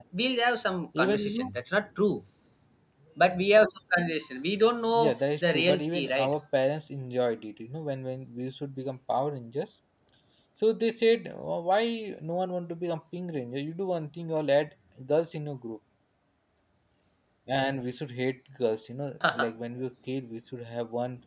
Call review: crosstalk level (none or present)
present